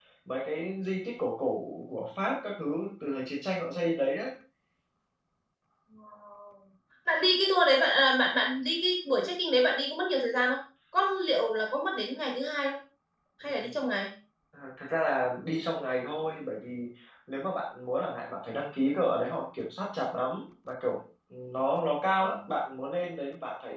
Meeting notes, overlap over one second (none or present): none